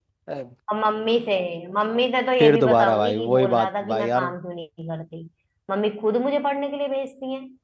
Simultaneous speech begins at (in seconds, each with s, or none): 2.4 s